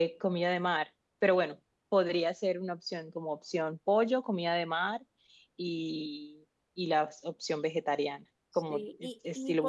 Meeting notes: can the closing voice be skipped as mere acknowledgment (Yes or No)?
No